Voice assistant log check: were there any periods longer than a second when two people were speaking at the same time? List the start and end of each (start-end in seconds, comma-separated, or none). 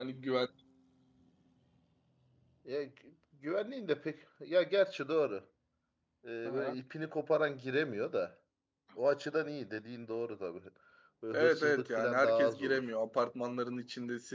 11.3-12.8